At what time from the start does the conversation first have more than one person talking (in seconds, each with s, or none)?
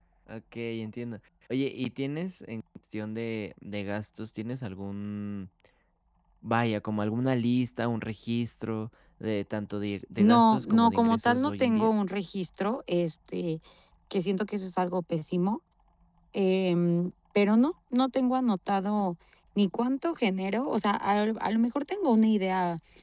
10.2 s